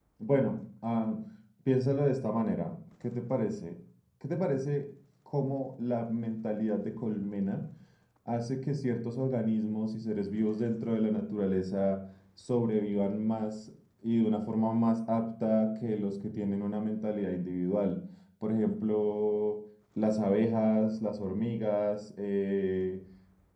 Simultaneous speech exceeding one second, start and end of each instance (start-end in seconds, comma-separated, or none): none